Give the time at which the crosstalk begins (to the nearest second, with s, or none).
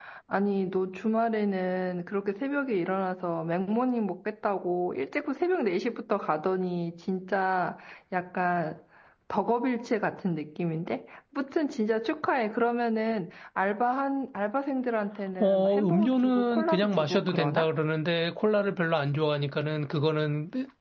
15 s